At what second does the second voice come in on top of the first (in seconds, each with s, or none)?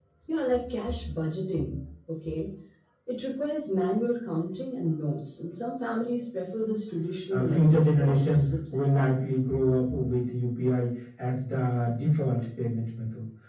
7.3 s